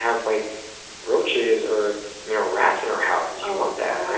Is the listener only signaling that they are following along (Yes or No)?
No